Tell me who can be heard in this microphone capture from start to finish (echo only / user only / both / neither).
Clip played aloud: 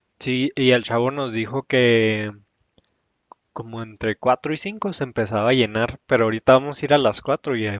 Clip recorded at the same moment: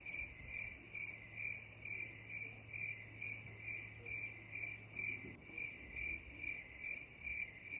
neither